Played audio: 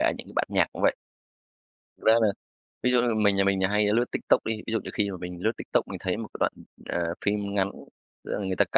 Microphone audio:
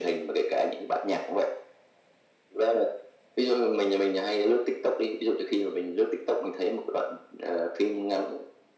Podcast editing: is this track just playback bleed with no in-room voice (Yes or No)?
Yes